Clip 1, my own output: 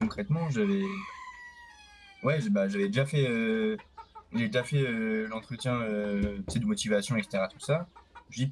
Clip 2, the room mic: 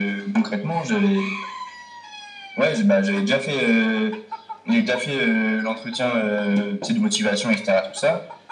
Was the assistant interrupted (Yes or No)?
No